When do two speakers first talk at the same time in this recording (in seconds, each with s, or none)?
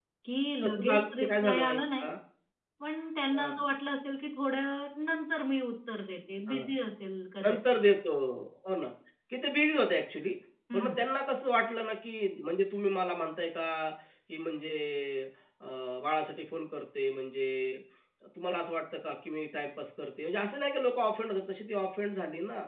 0.6 s